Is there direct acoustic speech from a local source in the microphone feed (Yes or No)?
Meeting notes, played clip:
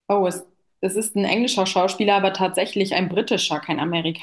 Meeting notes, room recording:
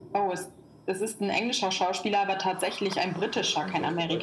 Yes